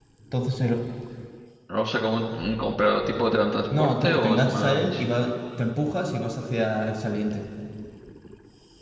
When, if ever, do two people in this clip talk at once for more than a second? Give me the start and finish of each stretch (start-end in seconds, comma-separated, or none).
3.8-5.0